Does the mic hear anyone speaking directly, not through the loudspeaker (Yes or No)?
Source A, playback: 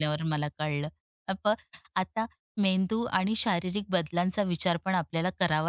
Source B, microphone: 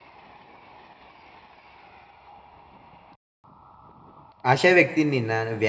Yes